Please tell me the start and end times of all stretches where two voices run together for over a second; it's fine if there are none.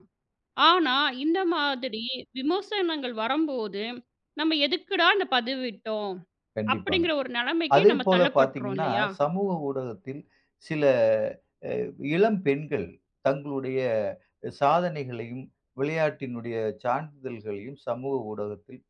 7.8-9.0

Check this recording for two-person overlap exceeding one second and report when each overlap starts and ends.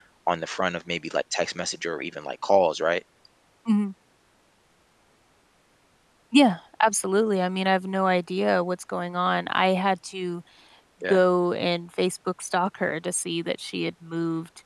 none

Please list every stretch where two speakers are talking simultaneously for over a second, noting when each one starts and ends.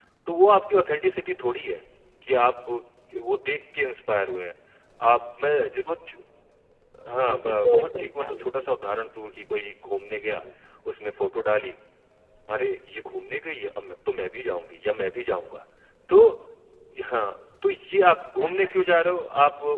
7.2-8.7

